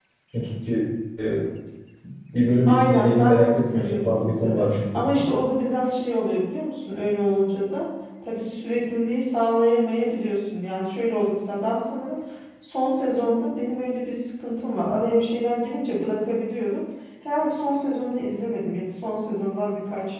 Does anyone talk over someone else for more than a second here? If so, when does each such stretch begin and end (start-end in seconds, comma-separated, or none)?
2.7-5.0